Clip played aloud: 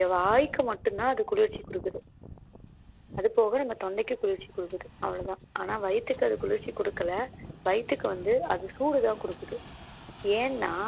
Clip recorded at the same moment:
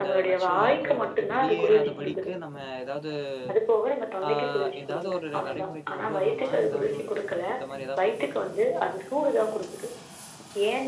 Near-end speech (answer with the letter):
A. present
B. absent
A